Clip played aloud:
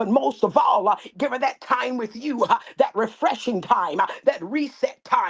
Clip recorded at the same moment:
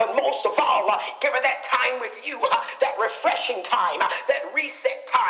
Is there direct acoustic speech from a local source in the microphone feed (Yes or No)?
No